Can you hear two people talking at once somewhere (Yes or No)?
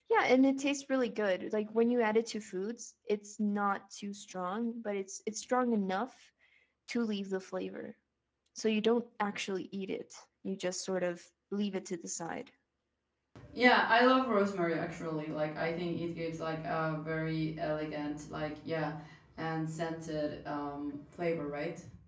No